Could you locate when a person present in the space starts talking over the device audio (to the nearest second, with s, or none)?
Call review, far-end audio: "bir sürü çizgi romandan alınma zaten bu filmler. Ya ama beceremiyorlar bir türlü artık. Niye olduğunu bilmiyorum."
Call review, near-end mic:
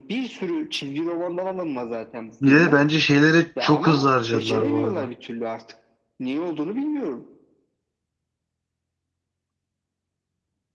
2 s